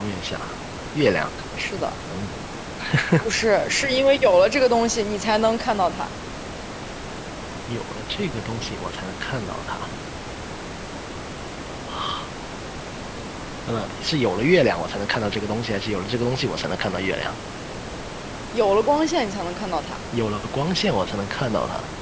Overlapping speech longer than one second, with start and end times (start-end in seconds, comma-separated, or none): none